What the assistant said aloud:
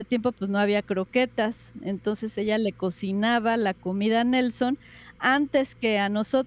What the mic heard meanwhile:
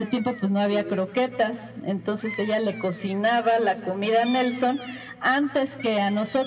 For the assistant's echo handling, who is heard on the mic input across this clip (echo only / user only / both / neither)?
both